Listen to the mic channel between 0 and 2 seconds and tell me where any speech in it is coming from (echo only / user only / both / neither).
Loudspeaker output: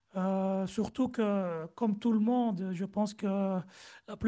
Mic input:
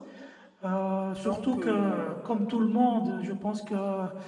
both